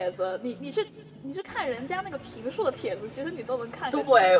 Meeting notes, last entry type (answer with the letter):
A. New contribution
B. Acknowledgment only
A